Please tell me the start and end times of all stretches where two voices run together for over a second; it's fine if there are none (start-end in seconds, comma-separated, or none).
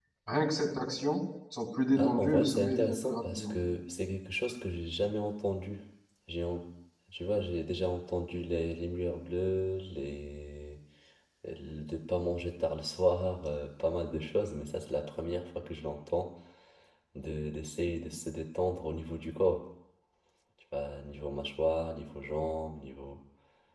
2.0-3.5